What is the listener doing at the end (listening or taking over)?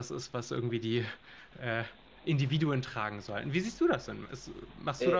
taking over